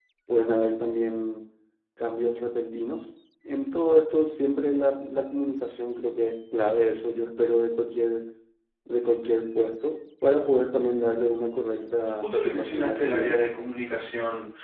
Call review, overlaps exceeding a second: present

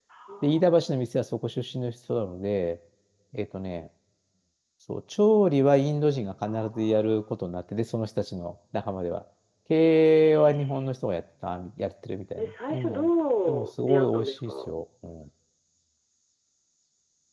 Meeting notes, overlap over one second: present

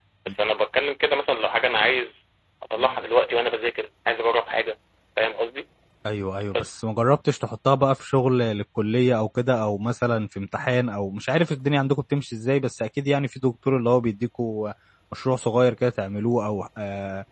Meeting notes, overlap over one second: none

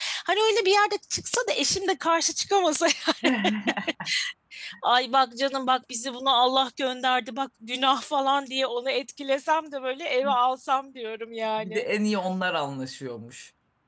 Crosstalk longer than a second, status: none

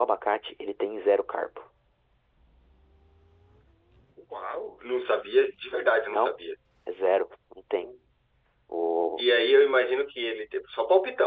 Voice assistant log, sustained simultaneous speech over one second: none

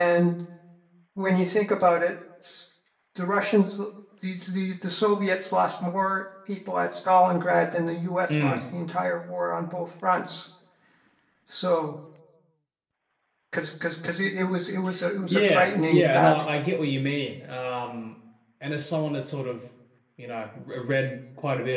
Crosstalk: present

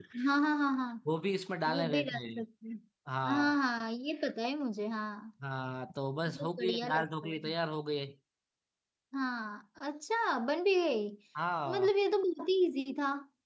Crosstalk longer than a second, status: present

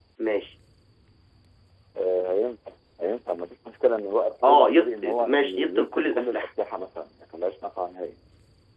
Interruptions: present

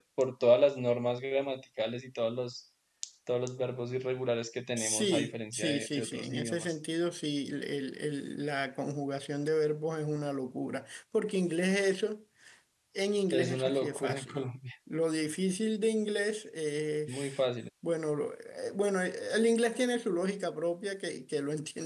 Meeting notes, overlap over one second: present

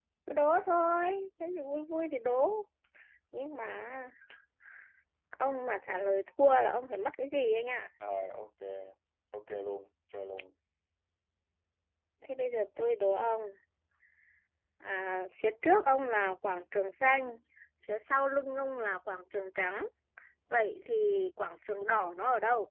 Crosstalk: none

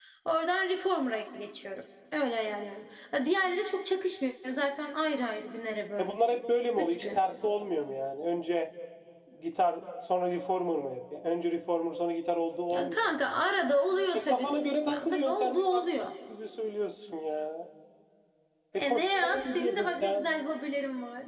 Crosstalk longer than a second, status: present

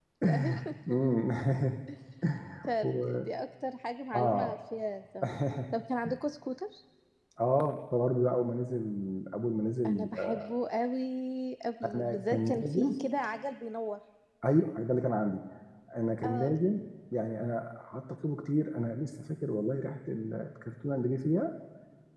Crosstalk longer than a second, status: present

